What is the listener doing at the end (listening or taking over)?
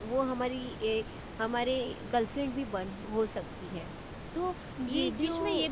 taking over